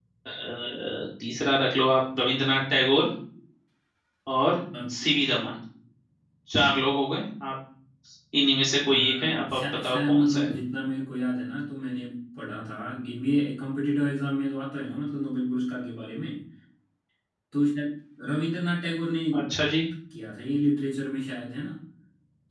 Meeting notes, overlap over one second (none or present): present